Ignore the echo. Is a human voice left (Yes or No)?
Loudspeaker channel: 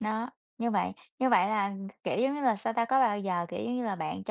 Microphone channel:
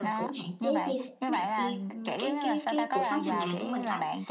Yes